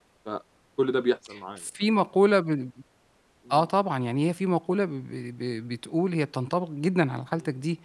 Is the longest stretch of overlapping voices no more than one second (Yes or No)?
Yes